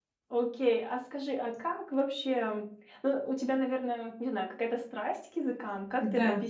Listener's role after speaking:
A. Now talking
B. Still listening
A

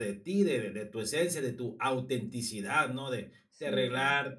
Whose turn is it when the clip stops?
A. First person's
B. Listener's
A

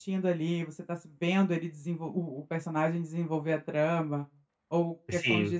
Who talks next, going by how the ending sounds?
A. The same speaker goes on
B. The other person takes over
A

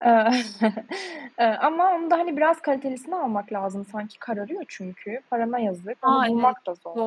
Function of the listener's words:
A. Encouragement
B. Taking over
B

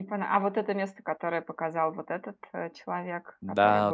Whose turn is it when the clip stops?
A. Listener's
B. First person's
A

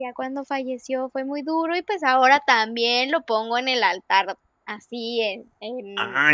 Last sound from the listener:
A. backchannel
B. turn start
B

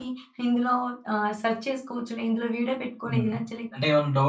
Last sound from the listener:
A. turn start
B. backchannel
A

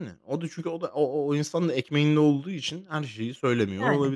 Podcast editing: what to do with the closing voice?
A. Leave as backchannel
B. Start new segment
A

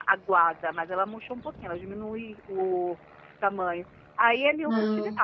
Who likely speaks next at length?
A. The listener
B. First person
B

